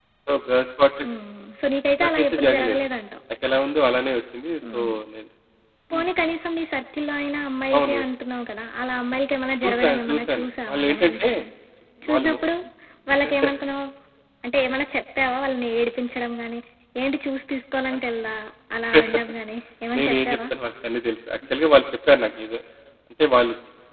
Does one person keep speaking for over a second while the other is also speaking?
Yes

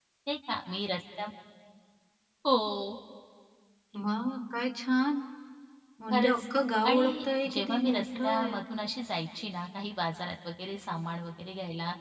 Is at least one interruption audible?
Yes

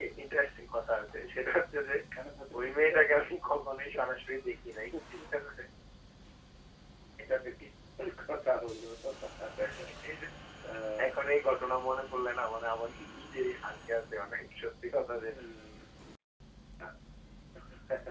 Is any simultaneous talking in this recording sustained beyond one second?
No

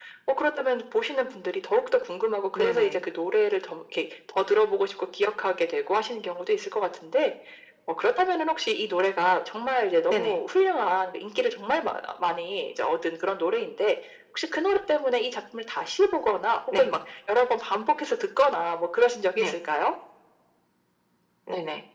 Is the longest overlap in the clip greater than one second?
No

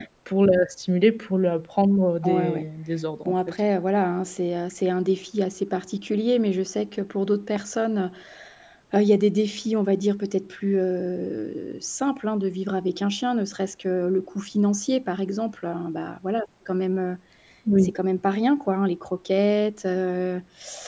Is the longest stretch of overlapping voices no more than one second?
Yes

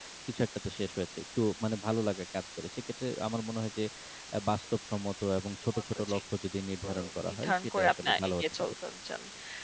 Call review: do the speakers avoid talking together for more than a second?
No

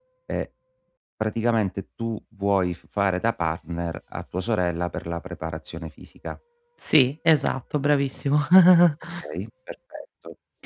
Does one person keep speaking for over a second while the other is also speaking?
No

